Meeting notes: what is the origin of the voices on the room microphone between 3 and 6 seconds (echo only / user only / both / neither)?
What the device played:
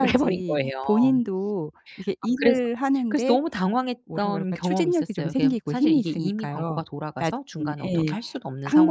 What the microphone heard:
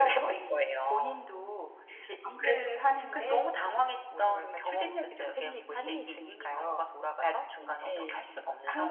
echo only